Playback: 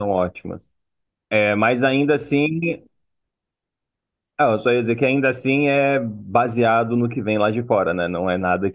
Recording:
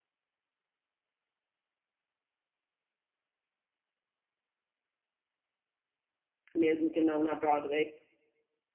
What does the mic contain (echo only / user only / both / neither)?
user only